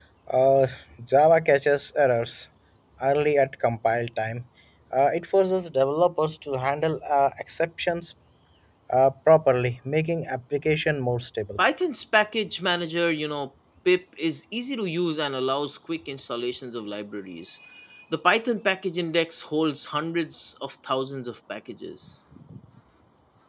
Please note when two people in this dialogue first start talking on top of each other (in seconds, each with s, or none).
none